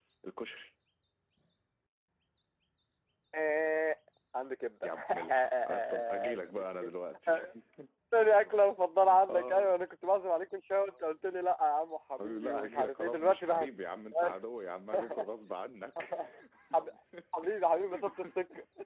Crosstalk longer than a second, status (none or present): present